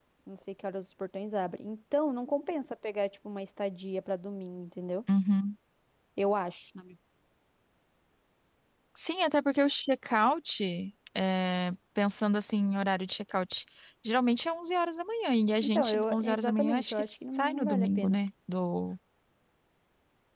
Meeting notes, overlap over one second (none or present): present